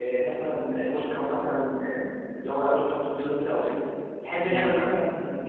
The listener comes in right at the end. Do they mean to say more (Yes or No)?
No